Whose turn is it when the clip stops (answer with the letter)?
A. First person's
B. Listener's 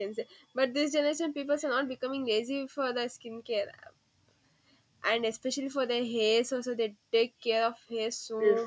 B